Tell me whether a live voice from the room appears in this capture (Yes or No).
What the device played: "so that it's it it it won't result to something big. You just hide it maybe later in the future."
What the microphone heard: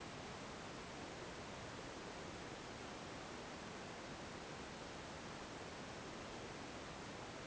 No